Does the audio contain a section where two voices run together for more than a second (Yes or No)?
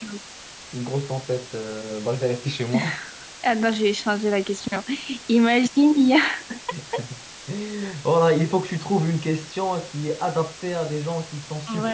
No